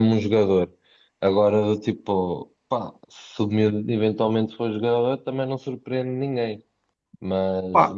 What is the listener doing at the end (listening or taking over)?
taking over